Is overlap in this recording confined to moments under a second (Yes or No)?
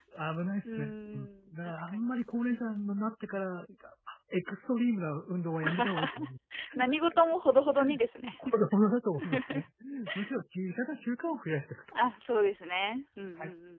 No